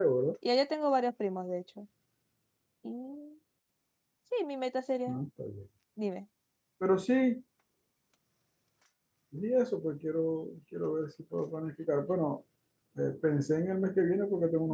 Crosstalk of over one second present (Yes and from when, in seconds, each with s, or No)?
No